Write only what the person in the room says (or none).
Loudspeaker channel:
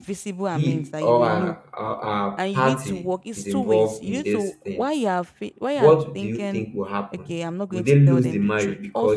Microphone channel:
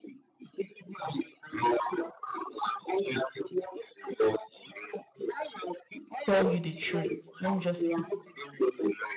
tell you the truth, let me just keep